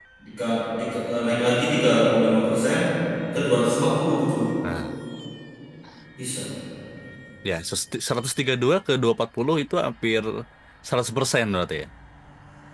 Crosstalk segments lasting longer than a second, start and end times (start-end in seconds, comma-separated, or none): none